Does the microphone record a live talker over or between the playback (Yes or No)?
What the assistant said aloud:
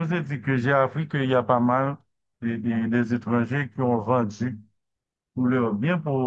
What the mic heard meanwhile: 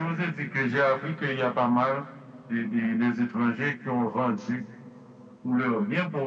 No